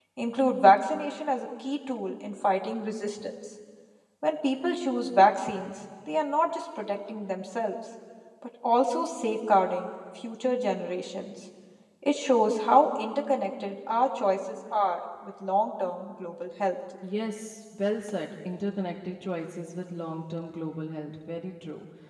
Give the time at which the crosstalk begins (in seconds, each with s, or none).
none